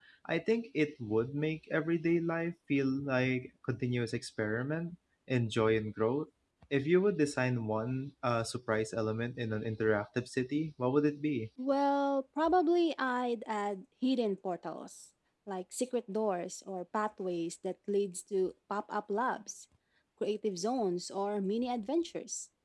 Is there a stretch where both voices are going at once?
No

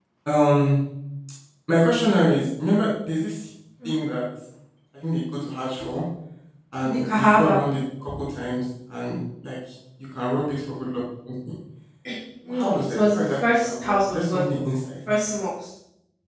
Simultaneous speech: Yes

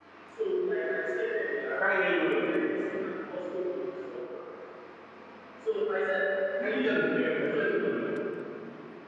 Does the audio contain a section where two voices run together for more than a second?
Yes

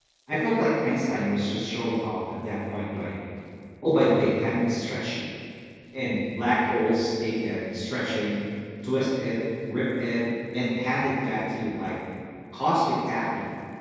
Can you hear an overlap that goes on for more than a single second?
No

